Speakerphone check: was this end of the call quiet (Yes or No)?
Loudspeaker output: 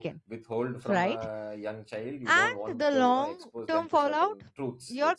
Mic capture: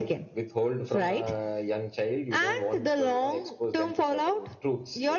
Yes